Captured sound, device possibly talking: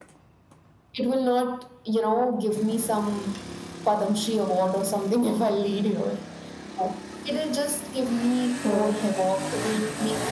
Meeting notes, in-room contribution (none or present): present